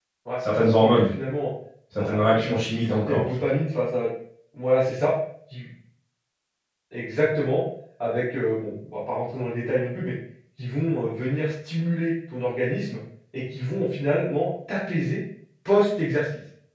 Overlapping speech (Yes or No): Yes